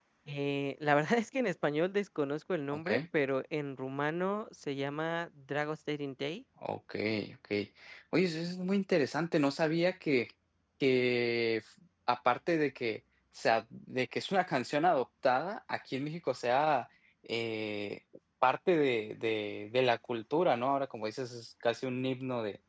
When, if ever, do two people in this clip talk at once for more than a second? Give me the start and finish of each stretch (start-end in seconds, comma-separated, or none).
none